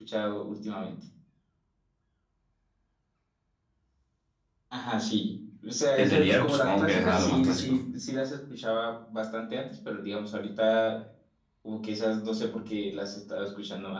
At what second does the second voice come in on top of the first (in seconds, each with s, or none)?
6.0 s